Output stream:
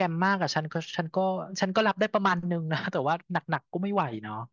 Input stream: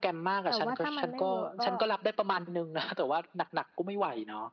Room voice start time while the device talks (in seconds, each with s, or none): 0.5 s